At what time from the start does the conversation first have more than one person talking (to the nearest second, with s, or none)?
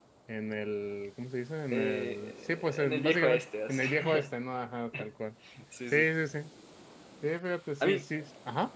2 s